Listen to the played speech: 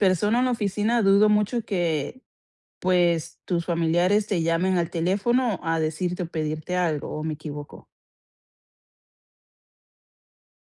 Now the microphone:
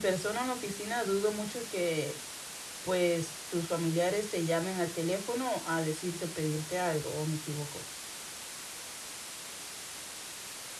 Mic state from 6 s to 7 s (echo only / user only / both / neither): echo only